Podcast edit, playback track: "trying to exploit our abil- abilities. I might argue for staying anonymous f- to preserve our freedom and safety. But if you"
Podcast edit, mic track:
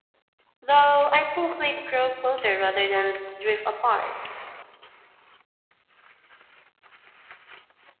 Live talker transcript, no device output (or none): though, I think we'd grow closer rather than drift apart.